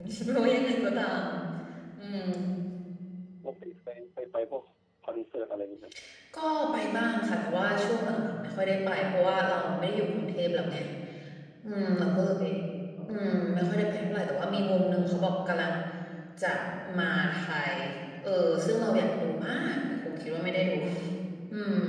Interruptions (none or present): none